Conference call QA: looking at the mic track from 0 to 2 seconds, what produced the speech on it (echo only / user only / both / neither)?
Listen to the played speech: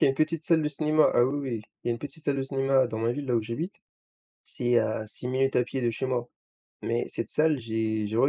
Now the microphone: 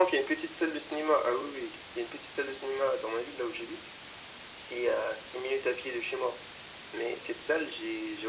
echo only